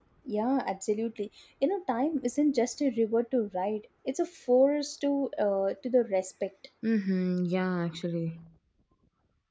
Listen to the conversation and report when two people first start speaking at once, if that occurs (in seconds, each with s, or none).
none